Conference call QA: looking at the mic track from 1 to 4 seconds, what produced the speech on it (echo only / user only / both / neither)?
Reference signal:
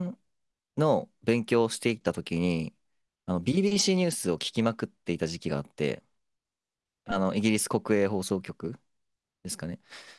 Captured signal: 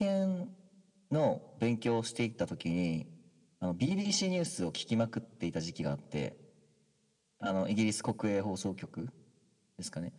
echo only